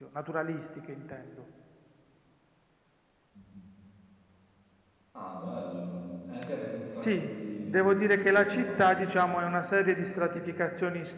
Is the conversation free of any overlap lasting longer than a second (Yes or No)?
No